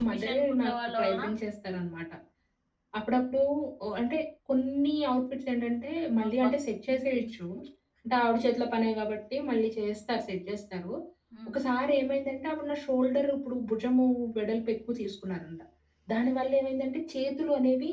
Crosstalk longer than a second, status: present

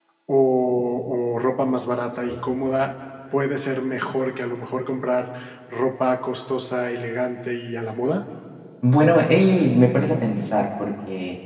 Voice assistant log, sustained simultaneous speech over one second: none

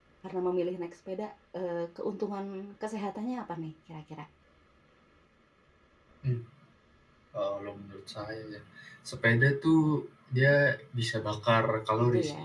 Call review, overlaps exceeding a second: none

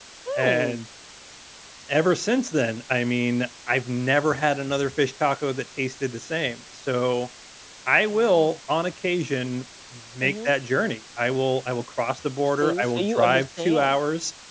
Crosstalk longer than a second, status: present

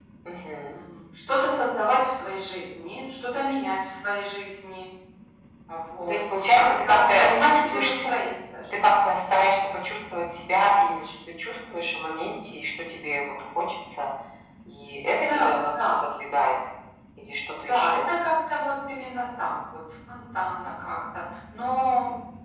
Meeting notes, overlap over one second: present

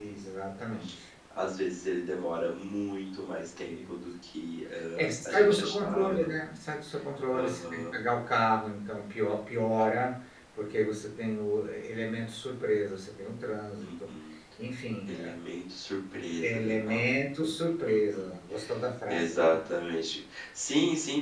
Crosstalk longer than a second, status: present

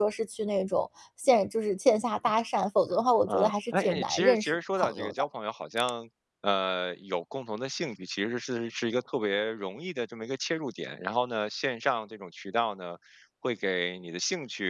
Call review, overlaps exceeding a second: present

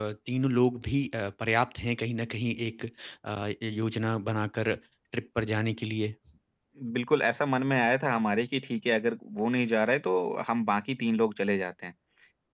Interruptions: none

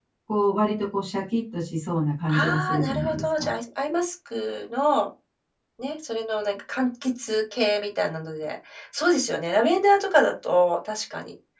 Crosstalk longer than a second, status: present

